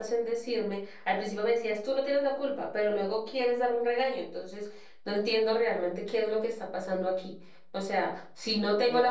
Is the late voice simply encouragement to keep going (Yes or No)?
No